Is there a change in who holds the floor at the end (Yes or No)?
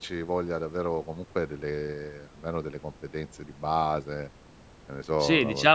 Yes